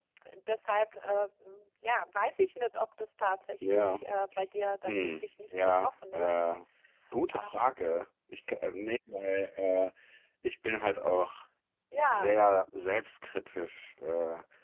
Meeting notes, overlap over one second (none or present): present